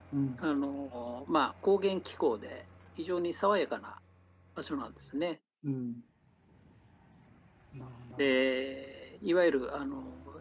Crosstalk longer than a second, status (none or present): none